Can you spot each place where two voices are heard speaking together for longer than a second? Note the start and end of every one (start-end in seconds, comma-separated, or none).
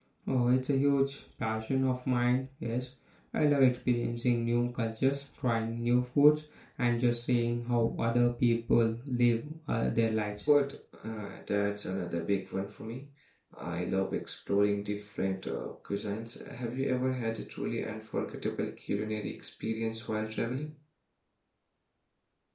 none